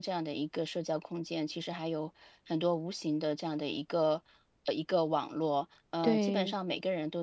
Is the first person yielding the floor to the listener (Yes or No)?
No